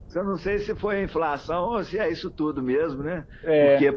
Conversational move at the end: listening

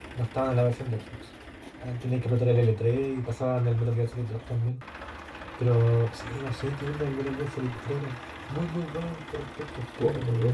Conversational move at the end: taking over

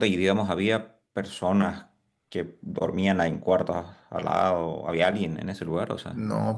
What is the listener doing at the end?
taking over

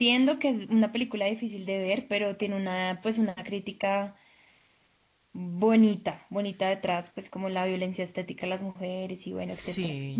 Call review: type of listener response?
taking over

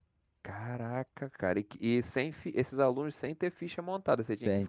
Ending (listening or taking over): taking over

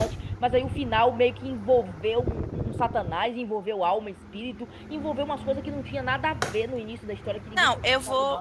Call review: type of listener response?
taking over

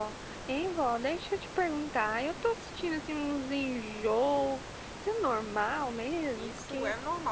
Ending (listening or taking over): taking over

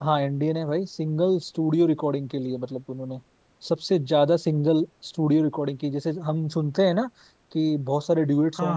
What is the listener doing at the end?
listening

